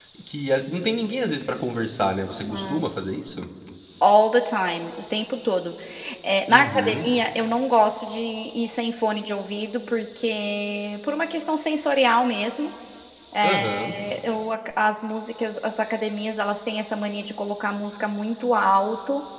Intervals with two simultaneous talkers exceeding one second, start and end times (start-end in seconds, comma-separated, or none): none